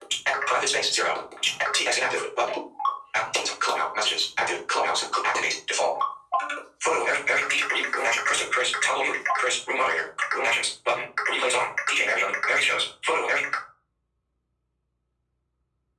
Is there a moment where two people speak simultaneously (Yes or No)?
No